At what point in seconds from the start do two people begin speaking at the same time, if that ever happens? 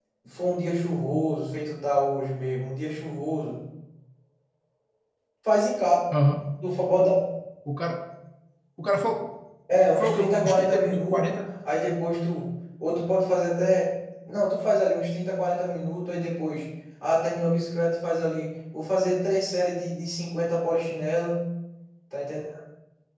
10 s

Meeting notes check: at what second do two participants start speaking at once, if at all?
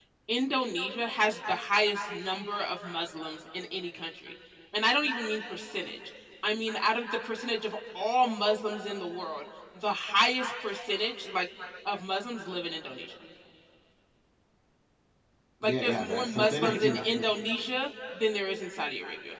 16 s

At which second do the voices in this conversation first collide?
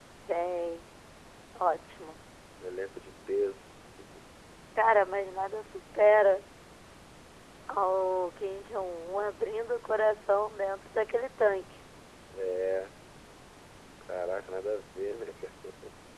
none

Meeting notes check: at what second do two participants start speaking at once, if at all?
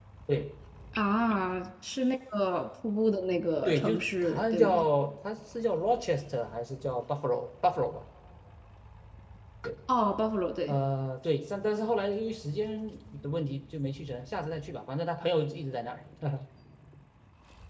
4 s

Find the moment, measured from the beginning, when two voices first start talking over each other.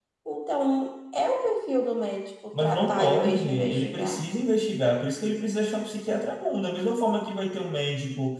3 s

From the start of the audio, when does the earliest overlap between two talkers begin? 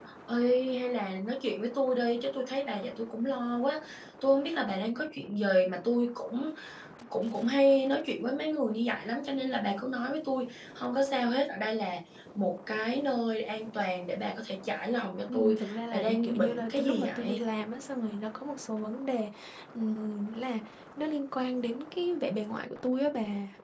15 s

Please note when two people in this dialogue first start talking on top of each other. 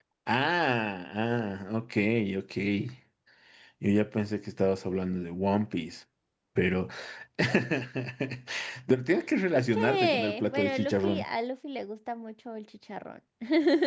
10 s

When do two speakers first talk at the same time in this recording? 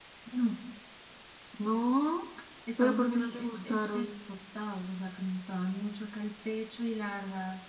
3 s

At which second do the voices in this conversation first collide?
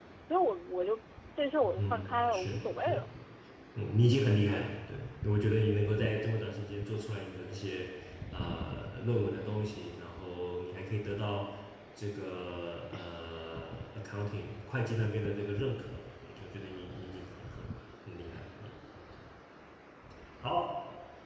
2 s

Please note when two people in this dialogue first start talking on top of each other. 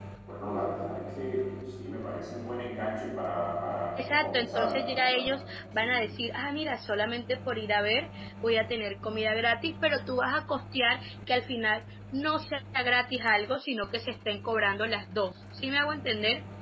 4 s

